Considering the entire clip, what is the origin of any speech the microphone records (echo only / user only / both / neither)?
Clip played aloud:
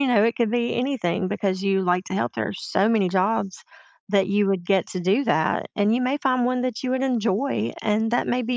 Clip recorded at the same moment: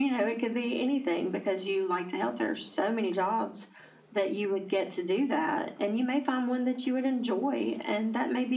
echo only